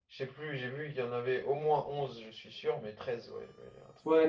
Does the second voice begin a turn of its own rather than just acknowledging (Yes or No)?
Yes